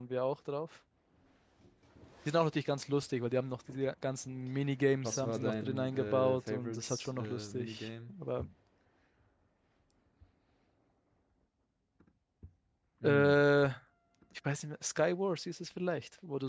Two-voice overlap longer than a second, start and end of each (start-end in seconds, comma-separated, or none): 5.0-8.1